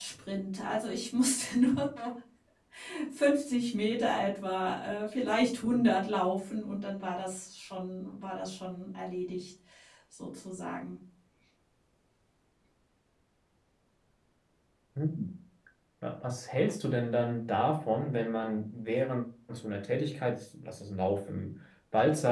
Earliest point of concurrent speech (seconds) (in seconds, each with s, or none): none